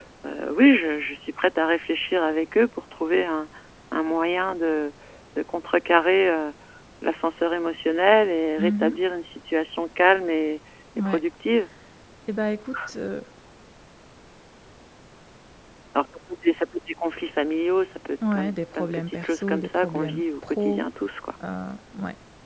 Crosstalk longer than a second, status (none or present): present